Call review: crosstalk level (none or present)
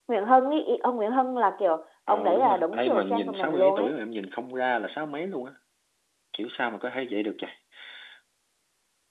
present